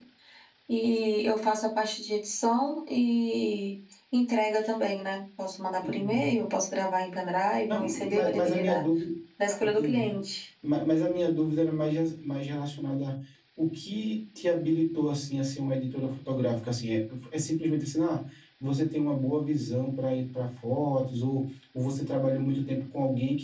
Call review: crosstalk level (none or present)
present